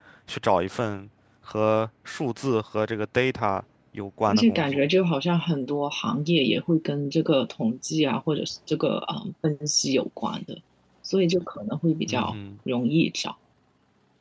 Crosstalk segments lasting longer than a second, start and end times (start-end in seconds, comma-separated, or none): none